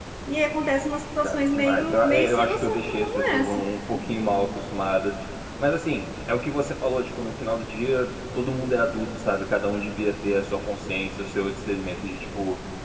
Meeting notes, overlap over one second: present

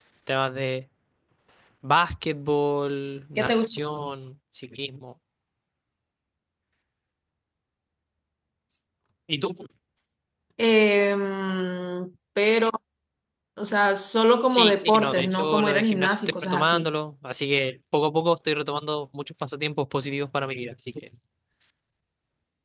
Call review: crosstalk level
present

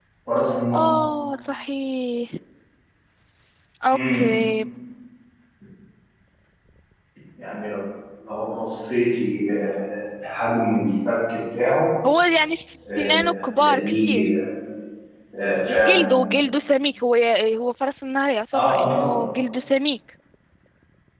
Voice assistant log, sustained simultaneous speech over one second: present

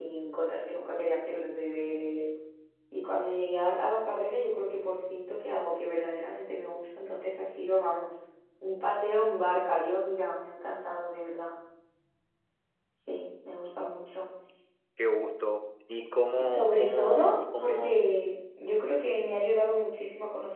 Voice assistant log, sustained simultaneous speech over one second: present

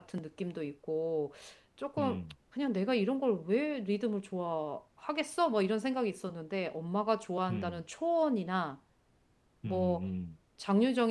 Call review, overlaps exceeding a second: none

